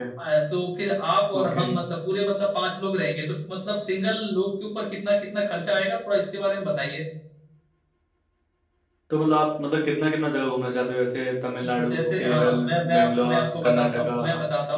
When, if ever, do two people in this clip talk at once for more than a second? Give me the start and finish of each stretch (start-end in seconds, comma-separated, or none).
11.9-14.2